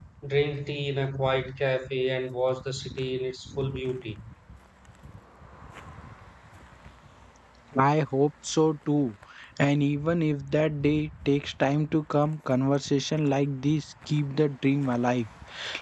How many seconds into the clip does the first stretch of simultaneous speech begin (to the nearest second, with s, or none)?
none